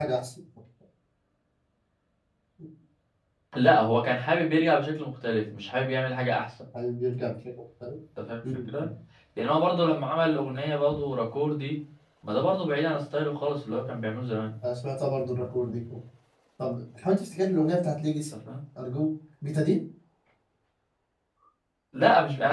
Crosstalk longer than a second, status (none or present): none